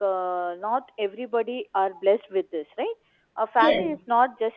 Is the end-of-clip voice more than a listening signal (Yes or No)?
No